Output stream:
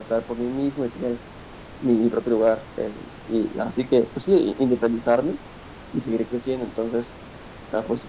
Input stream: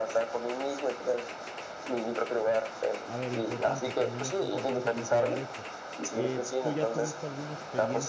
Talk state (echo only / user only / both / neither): both